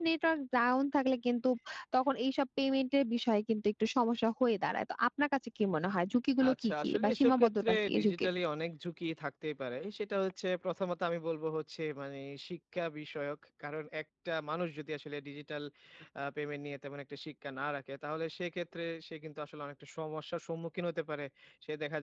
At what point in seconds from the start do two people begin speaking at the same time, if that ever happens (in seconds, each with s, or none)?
6.4 s